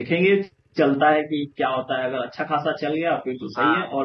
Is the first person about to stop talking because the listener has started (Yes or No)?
No